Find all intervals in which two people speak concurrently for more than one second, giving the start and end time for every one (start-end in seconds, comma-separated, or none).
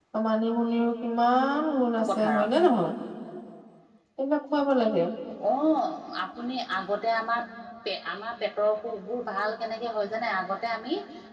none